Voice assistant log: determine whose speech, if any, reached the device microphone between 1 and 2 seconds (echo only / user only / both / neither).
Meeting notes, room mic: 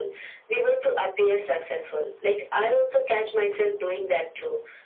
echo only